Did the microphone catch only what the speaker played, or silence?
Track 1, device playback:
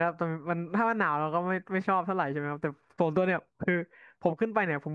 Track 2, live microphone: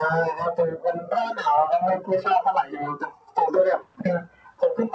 Yes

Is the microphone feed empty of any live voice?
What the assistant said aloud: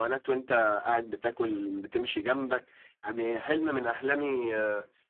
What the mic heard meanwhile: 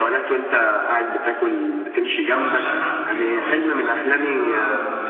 No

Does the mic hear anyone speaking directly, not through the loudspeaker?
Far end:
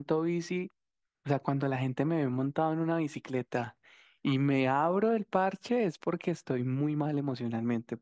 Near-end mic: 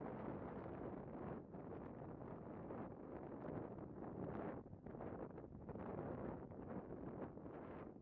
No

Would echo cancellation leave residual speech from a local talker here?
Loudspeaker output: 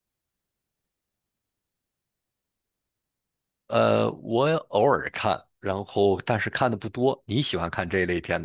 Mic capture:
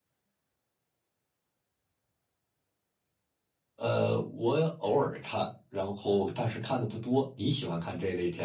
No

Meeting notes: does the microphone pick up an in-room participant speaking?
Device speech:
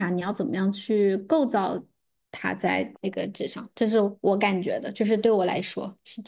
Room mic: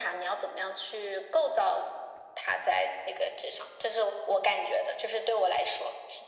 No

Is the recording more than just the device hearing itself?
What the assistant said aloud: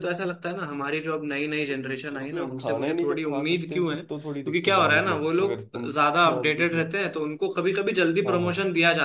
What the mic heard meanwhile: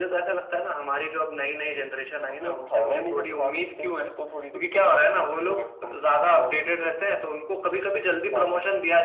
No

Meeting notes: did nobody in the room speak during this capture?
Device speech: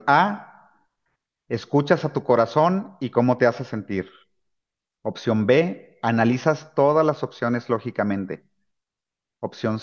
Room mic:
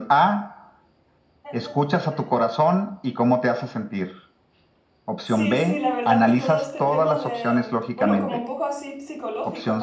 No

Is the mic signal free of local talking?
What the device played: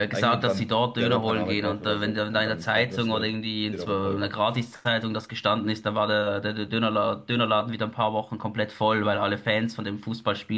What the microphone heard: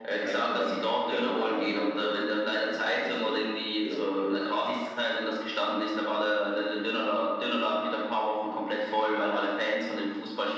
Yes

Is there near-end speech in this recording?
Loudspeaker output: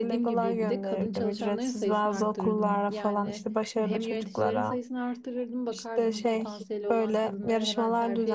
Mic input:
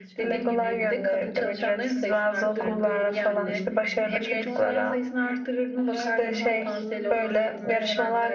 Yes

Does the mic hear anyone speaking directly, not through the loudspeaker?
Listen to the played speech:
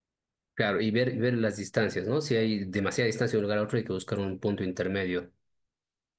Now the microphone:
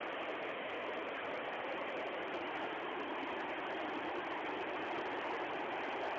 No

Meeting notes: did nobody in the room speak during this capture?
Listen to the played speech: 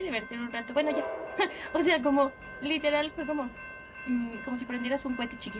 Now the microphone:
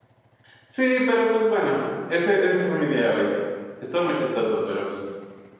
No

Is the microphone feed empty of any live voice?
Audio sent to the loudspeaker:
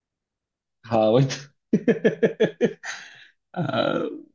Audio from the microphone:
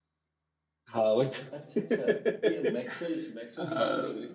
No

